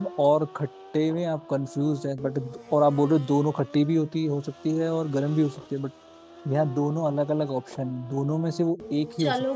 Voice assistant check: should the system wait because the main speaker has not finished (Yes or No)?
No